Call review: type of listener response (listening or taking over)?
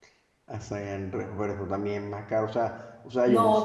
taking over